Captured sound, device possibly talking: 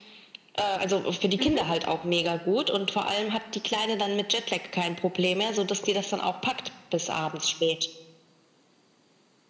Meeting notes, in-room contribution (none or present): present